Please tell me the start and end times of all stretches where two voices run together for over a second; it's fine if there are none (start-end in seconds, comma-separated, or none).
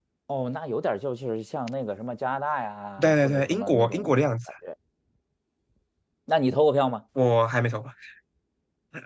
3.0-4.2